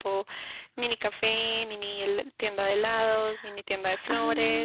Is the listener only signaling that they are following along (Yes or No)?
No